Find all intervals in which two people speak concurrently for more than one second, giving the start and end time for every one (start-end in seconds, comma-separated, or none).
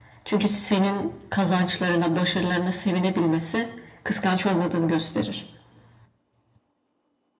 none